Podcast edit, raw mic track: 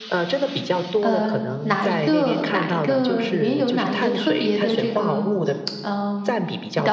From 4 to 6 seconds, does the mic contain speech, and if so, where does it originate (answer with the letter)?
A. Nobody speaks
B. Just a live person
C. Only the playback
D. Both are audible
D